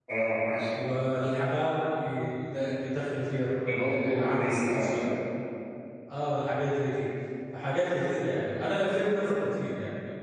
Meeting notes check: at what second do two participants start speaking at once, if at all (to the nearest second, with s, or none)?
4 s